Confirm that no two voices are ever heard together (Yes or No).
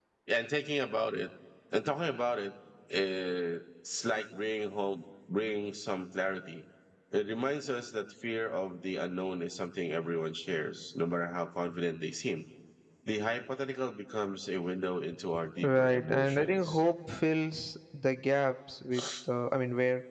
No